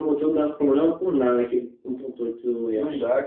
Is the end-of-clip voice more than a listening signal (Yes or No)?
Yes